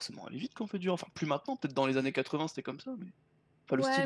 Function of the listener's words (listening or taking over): taking over